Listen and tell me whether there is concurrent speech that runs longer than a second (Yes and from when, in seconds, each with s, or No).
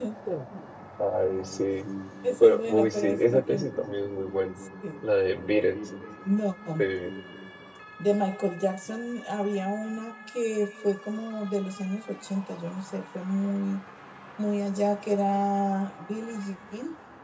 Yes, from 2.4 s